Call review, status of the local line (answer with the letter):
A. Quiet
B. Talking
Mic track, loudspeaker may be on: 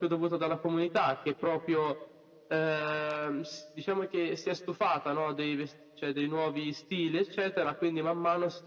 A